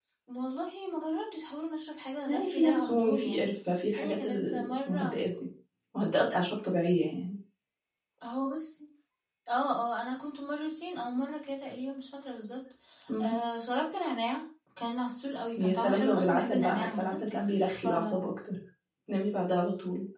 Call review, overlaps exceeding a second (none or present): present